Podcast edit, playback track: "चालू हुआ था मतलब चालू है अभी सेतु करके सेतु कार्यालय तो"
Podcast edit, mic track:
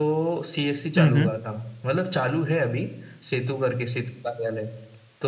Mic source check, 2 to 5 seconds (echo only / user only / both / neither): echo only